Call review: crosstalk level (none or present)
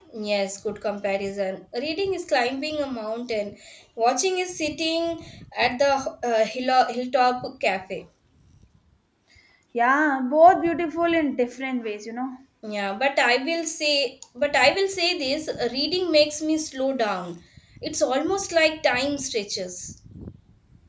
none